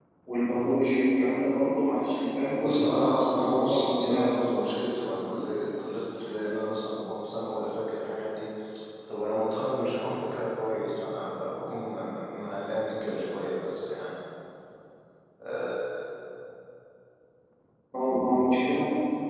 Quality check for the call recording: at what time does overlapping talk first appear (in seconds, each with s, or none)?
2.6 s